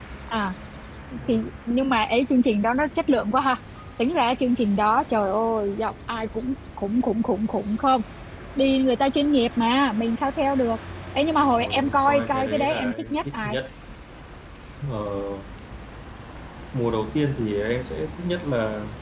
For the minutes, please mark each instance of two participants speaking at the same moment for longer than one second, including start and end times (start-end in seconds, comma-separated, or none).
11.6-13.6